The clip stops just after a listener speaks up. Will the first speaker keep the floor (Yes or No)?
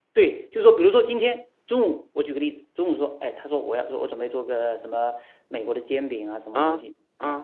Yes